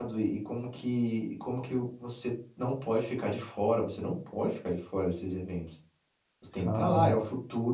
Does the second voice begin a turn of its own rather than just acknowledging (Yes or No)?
No